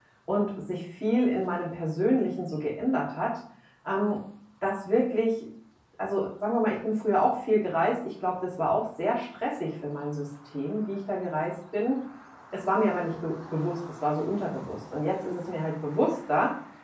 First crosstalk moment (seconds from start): none

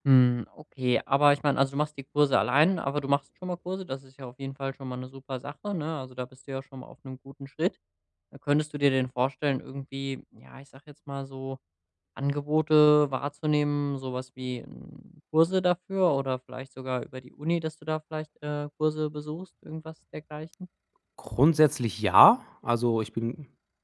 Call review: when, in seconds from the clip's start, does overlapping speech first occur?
none

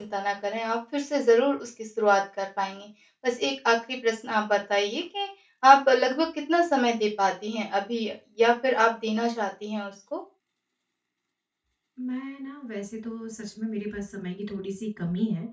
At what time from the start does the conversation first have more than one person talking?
none

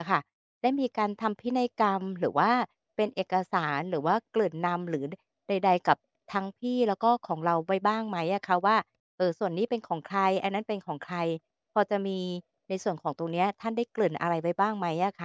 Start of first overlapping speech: none

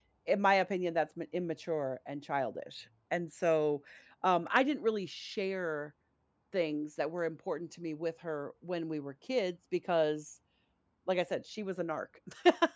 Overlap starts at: none

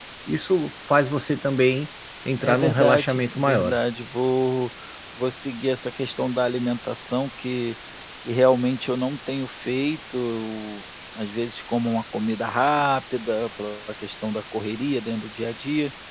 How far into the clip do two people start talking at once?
2.4 s

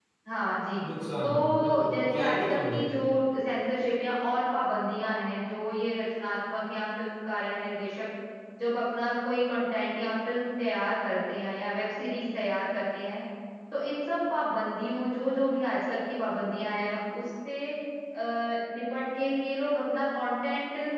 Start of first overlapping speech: 1.2 s

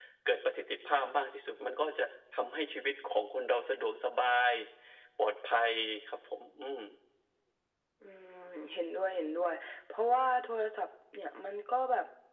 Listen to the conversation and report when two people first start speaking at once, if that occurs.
none

